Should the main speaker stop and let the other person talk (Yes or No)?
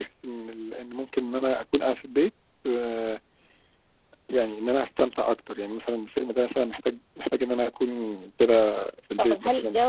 Yes